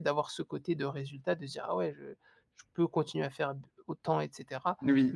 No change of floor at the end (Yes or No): Yes